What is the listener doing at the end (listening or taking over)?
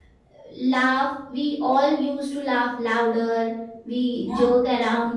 listening